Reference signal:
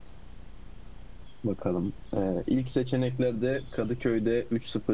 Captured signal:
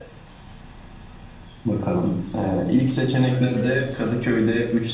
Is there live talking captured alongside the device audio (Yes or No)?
Yes